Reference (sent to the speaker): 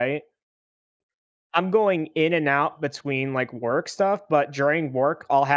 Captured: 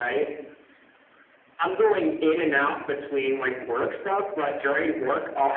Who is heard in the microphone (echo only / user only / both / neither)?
echo only